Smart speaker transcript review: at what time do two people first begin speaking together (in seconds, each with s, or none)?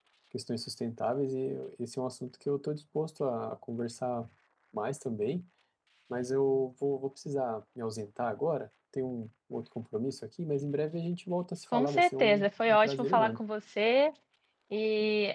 11.7 s